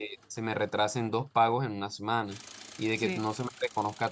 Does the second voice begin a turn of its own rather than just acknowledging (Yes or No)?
No